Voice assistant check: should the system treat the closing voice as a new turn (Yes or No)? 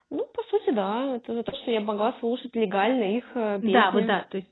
Yes